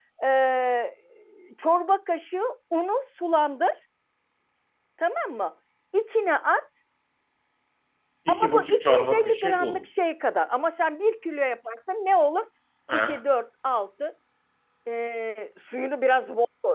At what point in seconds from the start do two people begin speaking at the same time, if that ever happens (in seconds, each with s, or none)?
8.3 s